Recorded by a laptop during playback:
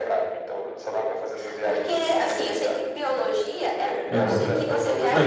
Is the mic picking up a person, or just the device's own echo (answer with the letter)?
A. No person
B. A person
B